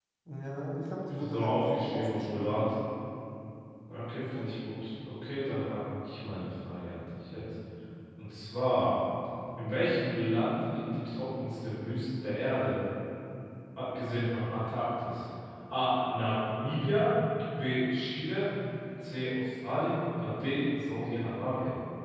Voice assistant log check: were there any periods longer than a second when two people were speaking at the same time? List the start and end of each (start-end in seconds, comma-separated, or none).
1.2-2.6